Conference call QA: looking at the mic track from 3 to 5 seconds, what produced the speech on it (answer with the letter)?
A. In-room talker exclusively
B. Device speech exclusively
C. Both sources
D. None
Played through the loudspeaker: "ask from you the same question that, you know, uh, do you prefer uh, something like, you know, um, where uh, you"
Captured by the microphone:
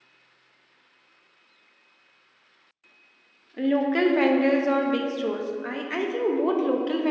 A